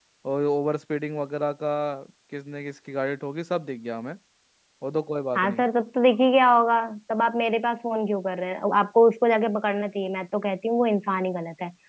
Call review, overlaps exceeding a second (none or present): none